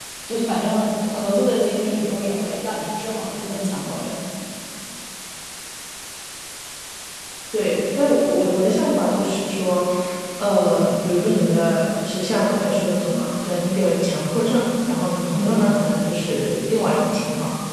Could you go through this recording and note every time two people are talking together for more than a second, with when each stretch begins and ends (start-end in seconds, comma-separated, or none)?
none